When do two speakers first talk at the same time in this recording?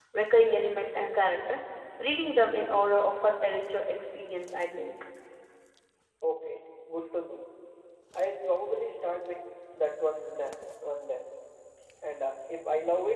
none

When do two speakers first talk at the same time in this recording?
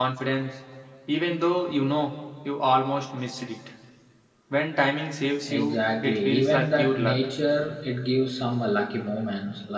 5.5 s

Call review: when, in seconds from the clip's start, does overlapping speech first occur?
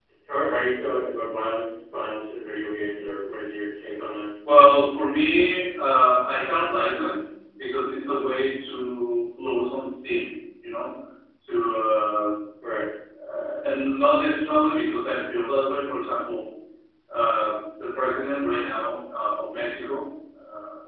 none

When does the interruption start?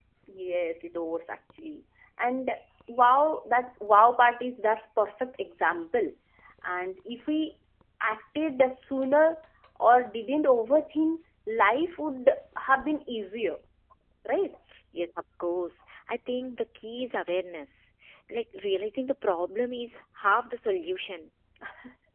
none

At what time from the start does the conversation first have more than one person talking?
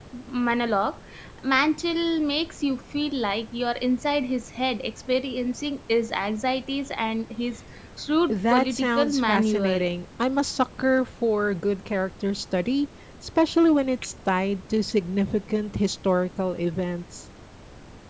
8.3 s

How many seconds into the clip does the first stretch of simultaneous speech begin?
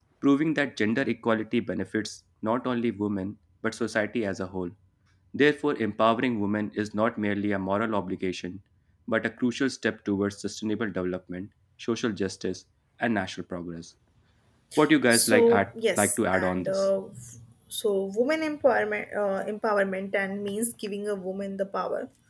15.1 s

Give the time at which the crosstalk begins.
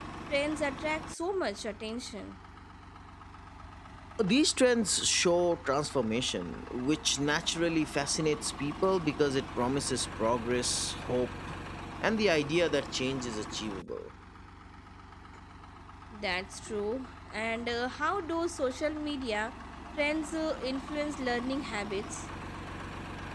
none

